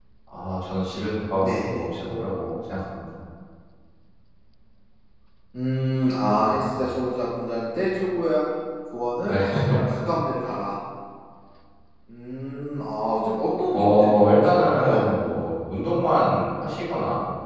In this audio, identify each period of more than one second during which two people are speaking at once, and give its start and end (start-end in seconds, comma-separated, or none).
13.7-15.1